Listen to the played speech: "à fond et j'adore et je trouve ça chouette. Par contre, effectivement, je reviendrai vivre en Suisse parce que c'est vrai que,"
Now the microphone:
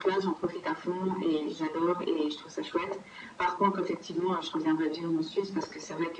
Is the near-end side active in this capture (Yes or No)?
No